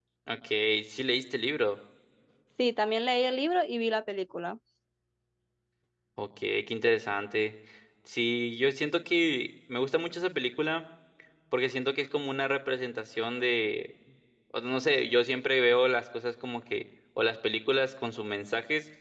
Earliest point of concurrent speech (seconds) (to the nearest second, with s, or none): none